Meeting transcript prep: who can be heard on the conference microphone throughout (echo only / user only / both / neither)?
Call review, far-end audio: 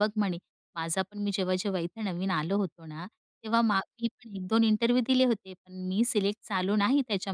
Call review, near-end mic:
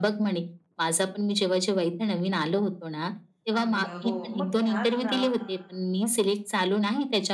both